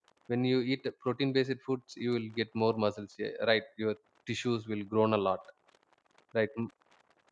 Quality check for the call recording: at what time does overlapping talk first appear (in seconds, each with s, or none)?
none